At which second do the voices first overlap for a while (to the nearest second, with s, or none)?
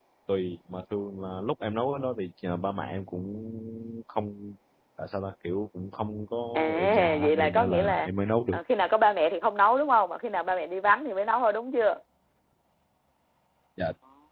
7 s